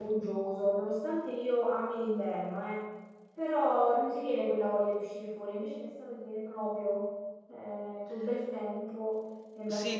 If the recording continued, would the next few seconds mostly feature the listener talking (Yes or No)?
Yes